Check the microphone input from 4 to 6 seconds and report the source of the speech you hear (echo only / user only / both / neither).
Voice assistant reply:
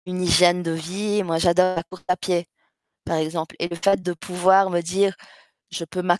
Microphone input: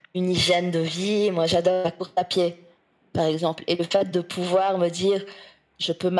echo only